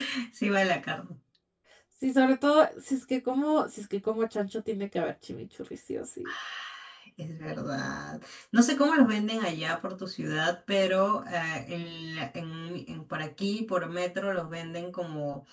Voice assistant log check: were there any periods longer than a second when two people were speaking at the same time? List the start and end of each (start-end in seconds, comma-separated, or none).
none